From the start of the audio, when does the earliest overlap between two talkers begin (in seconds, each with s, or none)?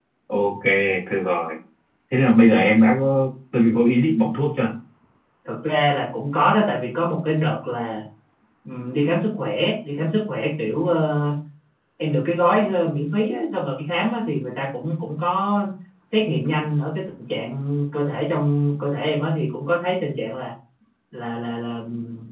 none